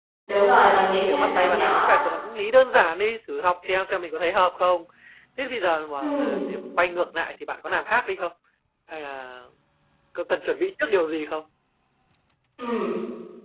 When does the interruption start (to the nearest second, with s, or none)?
1 s